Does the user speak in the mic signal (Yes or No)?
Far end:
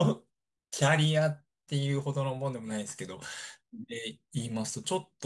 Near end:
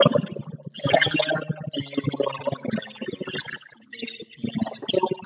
No